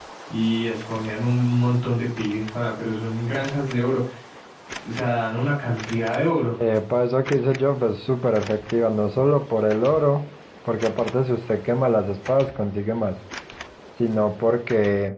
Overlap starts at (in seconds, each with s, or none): none